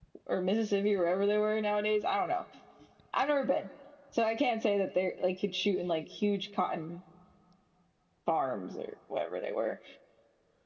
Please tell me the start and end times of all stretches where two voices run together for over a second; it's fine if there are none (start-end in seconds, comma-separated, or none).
none